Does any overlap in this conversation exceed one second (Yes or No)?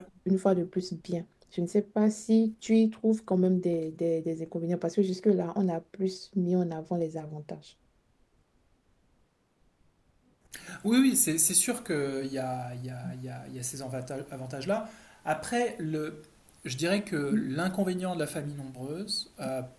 No